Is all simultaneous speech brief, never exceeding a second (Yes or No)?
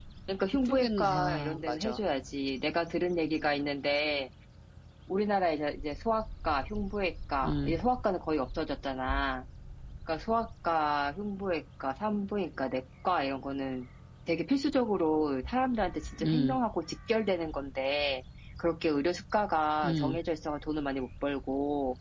No